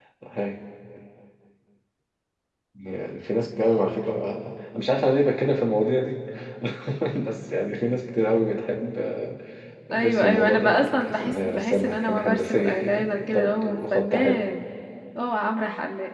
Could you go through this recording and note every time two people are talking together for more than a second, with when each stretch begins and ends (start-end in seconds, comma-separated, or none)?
9.9-14.4